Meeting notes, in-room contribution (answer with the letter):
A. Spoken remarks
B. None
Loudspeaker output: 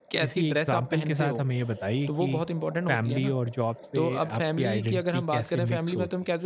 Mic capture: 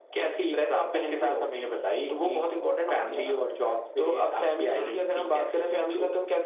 A